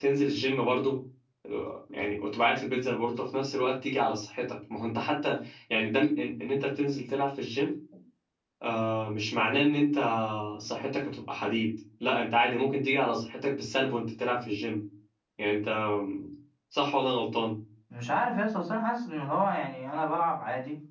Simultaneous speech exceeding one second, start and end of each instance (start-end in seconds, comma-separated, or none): none